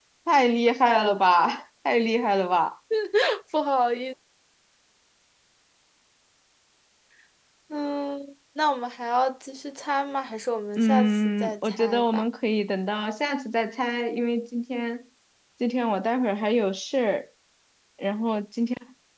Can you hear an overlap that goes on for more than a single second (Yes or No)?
Yes